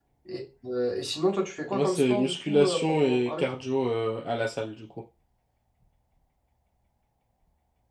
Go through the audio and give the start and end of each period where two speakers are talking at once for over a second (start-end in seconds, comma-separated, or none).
1.7-3.4